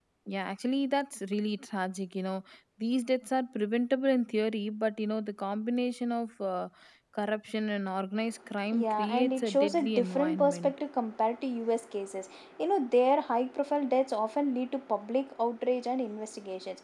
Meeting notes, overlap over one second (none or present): present